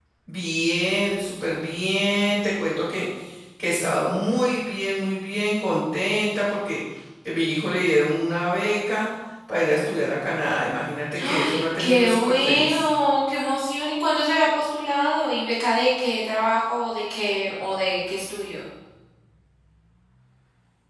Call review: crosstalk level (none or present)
present